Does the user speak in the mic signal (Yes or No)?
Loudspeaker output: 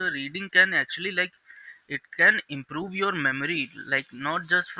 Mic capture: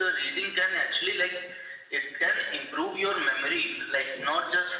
No